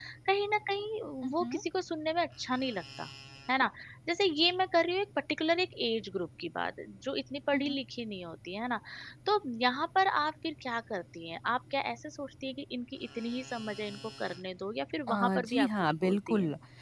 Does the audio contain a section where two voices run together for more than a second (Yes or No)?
Yes